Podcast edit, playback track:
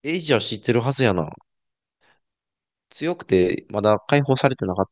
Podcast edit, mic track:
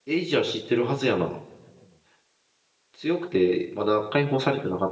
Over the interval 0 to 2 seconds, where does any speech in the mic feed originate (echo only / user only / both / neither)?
echo only